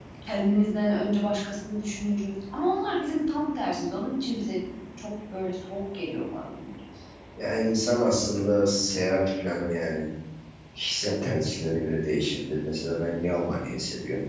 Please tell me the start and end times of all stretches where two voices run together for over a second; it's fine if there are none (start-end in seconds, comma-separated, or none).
none